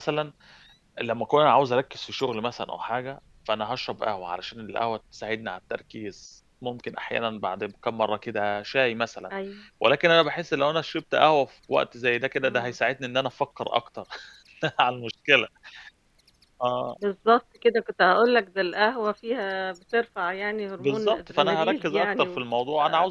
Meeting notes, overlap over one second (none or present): present